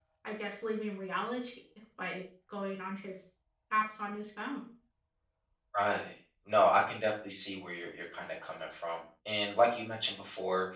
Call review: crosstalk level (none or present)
none